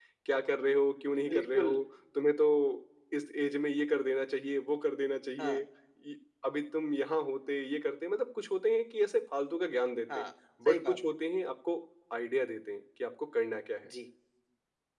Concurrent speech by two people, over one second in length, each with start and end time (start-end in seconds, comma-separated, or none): none